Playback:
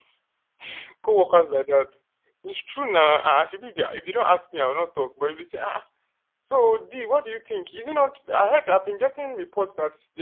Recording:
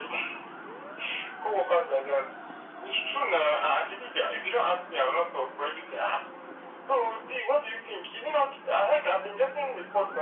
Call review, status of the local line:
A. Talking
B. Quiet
B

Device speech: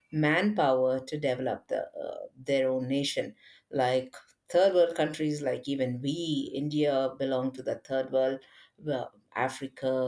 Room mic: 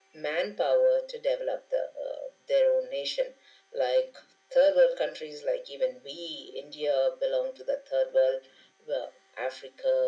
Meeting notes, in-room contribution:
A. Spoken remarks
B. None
B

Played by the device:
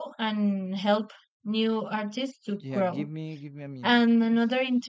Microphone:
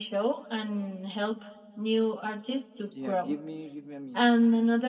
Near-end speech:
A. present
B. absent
B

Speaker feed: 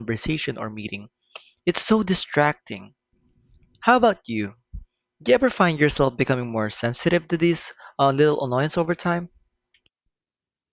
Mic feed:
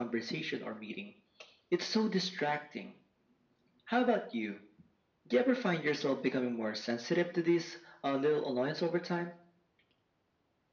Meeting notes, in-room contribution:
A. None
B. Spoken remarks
A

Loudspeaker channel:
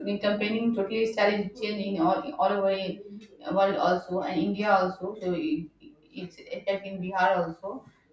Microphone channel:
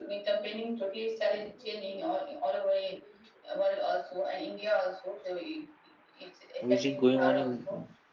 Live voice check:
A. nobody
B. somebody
B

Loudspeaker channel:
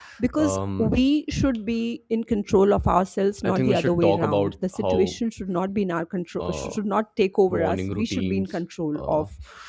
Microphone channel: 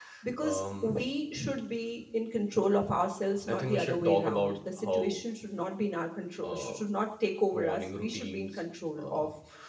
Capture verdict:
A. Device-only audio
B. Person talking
A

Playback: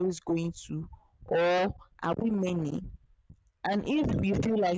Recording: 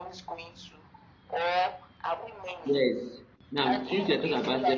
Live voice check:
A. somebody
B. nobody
A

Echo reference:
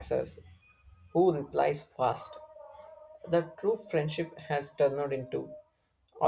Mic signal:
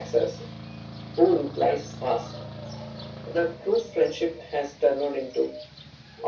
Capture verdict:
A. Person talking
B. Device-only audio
B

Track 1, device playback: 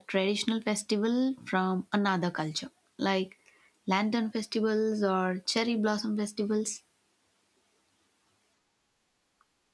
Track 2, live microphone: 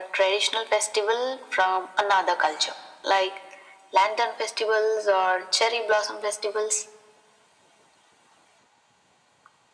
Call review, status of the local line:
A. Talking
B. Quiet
B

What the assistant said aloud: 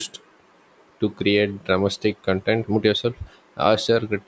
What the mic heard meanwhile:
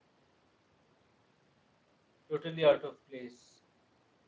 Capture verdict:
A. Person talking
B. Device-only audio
A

